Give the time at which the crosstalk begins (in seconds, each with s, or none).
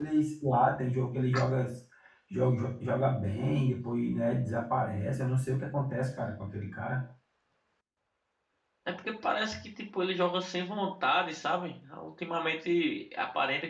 none